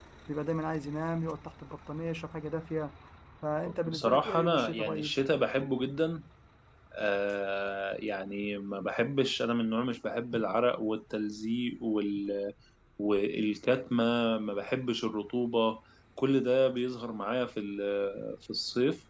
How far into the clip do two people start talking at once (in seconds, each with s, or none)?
3.9 s